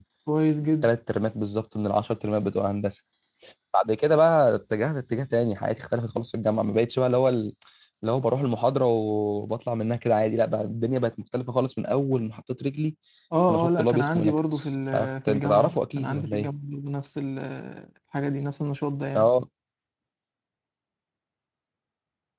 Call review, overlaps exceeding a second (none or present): present